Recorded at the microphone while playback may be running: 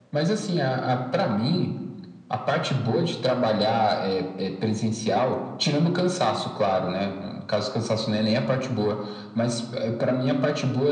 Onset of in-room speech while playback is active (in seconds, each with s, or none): none